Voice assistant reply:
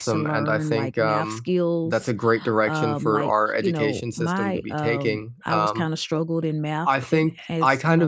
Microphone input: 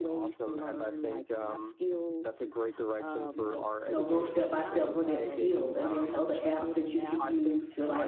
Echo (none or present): present